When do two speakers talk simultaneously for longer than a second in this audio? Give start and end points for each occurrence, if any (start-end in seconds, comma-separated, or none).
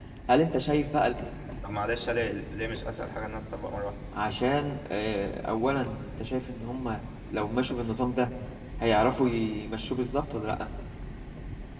none